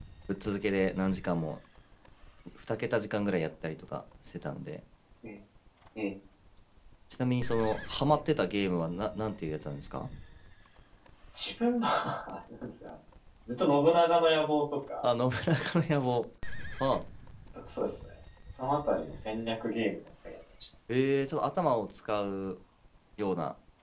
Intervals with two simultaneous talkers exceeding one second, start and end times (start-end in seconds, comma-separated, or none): none